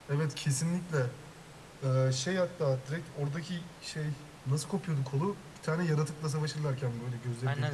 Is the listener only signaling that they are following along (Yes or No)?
No